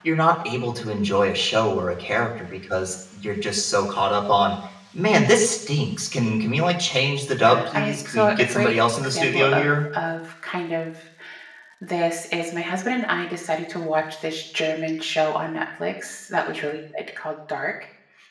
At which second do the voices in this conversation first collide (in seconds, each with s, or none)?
7.4 s